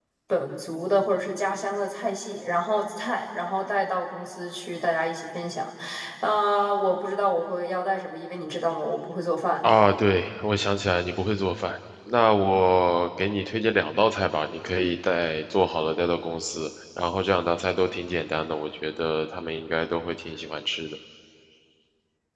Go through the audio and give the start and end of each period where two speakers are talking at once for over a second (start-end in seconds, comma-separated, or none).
none